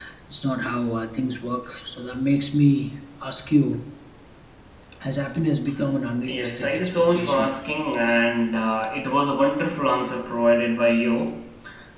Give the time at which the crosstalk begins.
6.3 s

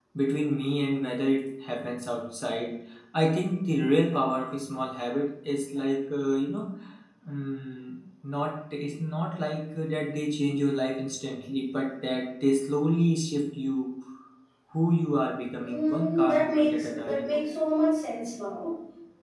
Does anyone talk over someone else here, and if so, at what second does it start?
15.6 s

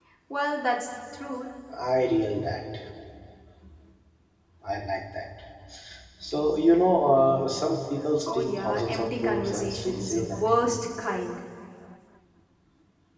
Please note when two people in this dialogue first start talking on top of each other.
8.3 s

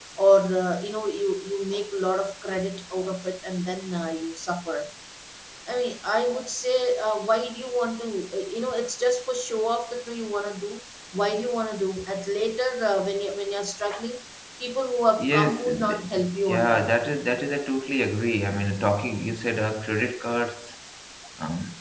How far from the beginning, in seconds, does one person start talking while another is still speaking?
15.2 s

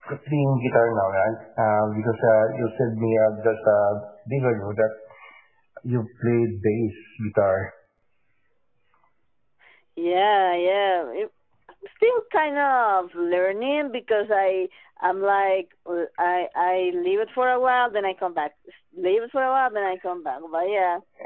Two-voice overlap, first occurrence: none

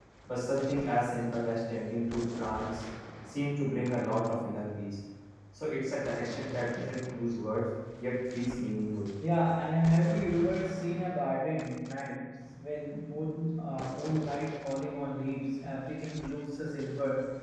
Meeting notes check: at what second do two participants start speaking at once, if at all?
none

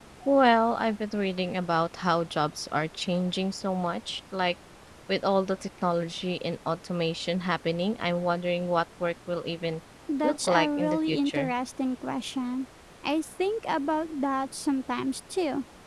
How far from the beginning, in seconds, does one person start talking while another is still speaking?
10.2 s

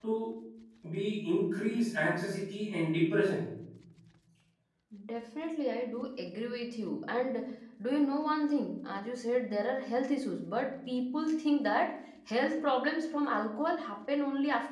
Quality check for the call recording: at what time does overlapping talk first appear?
none

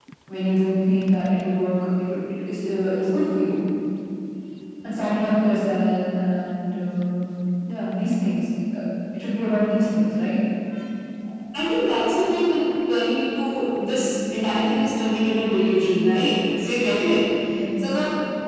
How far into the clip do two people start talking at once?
none

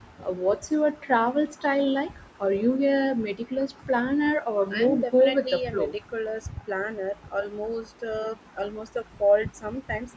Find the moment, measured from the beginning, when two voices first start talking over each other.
4.7 s

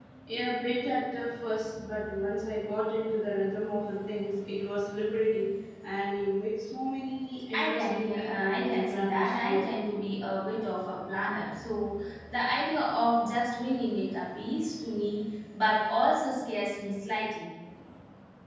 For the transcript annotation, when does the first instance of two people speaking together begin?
7.5 s

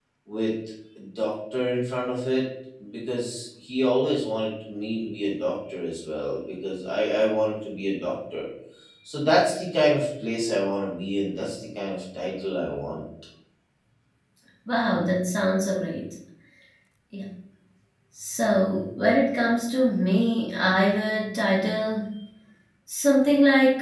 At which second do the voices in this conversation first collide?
none

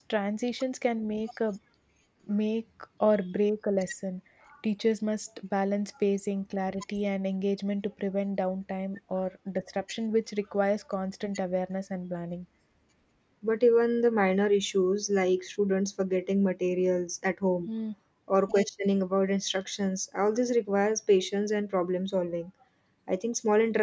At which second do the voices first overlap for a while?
none

